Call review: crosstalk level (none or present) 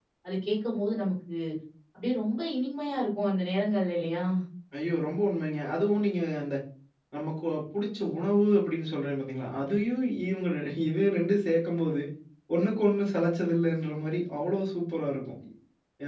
none